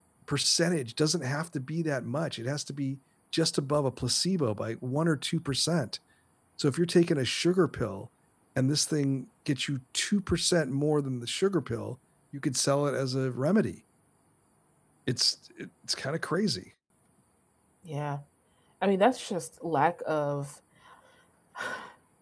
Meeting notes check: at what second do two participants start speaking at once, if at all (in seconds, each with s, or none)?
none